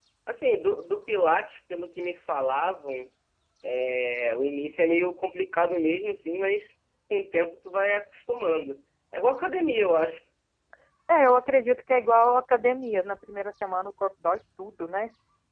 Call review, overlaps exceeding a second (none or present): none